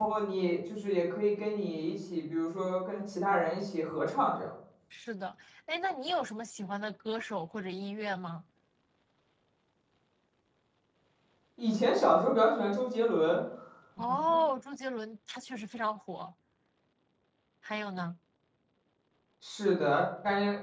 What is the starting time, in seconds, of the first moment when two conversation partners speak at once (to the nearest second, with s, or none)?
none